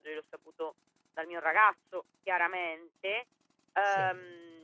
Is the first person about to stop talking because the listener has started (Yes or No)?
No